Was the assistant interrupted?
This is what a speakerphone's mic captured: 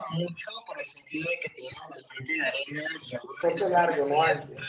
Yes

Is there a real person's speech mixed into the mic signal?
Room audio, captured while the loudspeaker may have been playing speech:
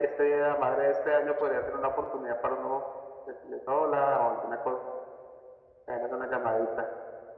No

